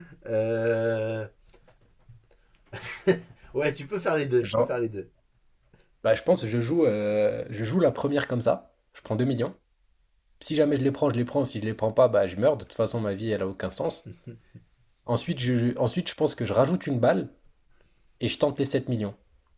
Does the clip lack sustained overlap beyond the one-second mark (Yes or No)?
Yes